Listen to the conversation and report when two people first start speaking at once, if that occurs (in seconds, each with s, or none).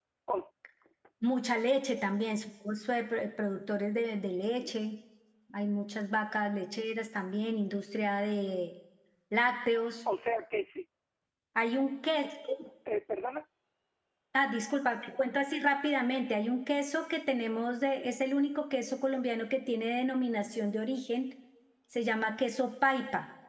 none